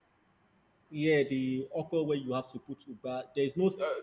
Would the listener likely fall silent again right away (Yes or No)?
Yes